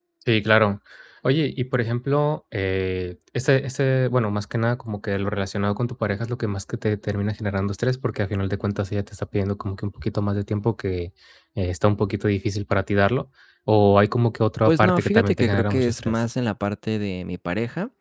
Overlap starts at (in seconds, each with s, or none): 14.7 s